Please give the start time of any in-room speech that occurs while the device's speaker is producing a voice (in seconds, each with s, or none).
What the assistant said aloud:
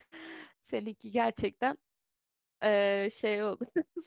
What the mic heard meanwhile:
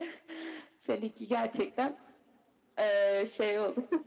none